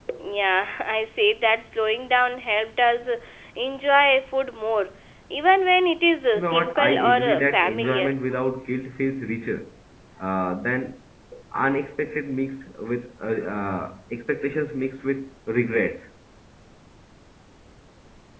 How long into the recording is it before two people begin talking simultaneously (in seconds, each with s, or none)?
6.3 s